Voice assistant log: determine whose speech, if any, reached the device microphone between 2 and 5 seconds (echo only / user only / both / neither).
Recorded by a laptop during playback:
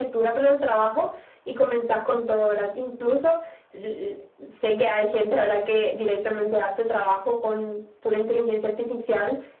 echo only